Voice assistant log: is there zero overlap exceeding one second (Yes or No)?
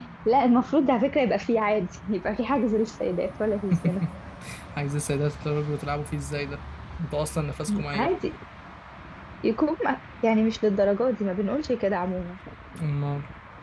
Yes